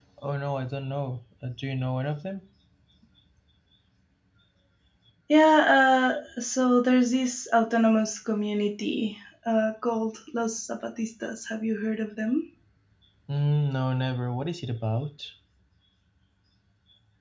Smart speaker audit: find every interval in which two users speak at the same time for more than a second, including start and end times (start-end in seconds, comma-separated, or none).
none